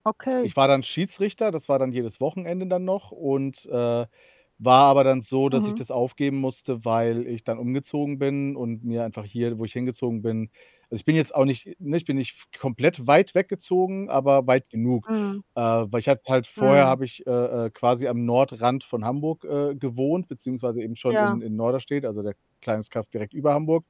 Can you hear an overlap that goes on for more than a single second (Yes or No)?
No